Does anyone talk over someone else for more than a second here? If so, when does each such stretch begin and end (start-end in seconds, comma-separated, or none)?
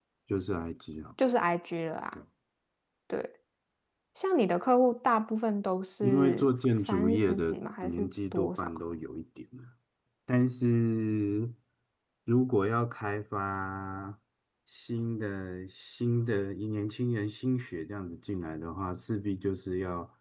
6.0-8.7